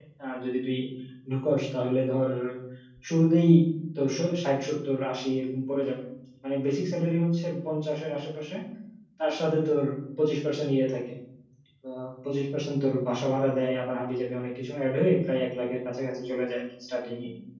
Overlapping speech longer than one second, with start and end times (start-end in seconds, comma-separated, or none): none